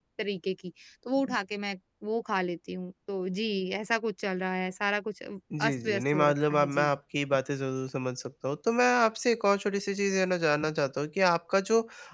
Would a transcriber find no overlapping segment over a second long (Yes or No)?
No